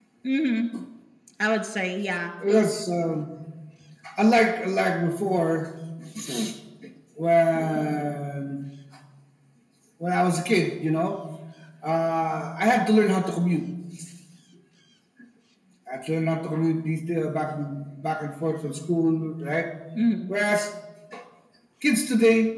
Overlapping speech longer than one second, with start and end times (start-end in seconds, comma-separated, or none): none